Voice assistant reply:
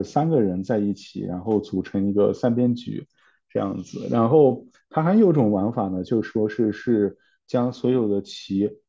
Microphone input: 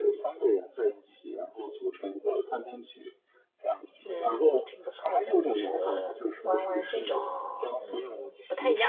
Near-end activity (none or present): present